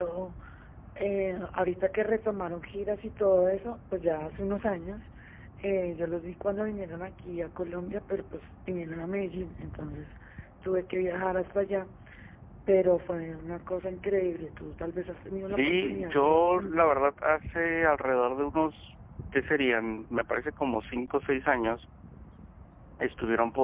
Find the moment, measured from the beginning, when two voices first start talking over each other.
15 s

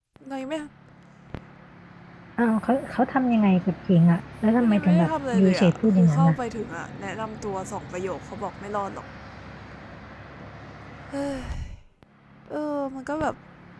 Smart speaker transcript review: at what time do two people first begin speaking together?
5 s

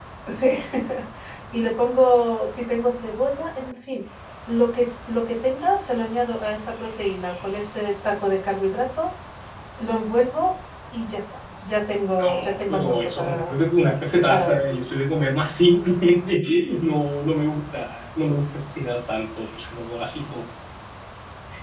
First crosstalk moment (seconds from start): 12 s

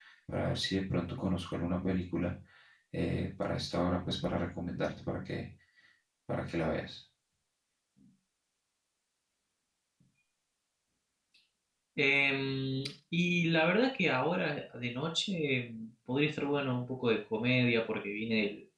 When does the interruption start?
none

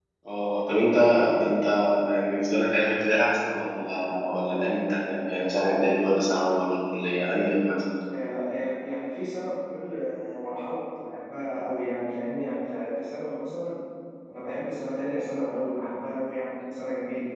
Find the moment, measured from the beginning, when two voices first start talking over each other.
none

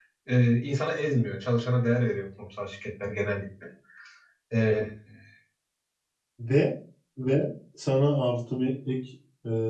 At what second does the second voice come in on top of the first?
none

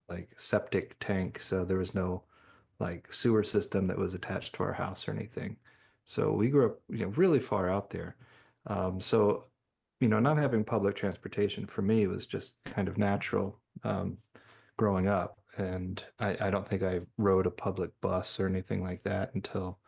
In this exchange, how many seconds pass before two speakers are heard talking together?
none

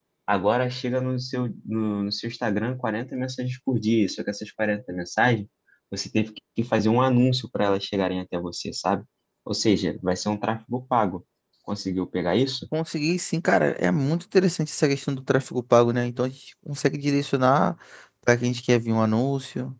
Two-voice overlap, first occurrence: none

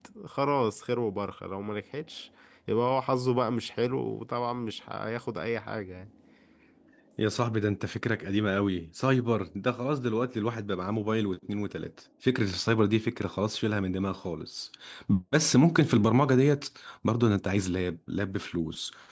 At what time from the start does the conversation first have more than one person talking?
none

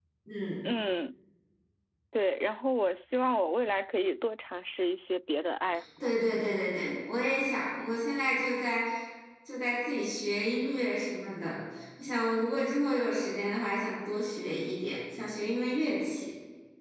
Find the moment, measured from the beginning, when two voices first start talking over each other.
none

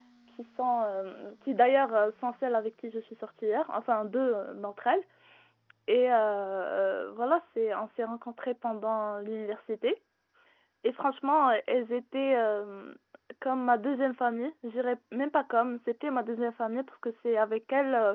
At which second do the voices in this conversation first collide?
none

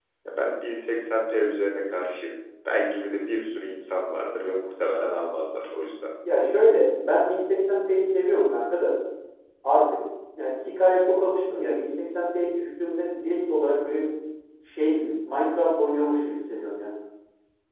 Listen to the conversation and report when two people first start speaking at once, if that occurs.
none

